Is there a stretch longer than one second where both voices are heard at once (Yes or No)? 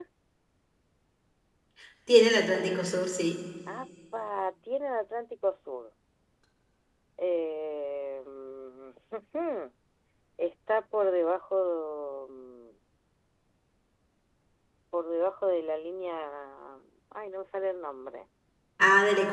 No